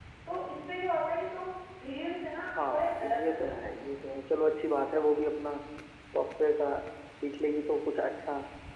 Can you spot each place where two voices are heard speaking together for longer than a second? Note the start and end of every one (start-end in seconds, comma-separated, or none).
2.4-3.9